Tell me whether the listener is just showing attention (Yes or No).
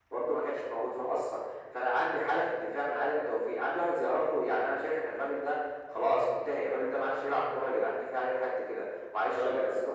Yes